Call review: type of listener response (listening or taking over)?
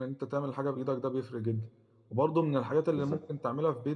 listening